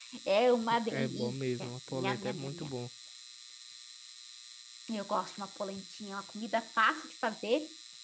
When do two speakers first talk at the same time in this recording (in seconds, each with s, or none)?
0.9 s